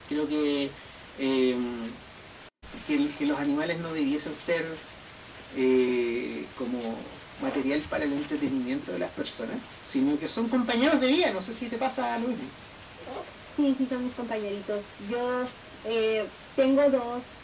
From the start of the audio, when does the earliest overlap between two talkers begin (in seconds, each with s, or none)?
none